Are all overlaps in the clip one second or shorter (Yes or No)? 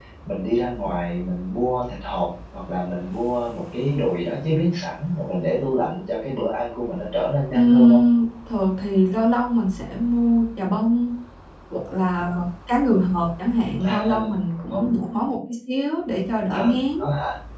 Yes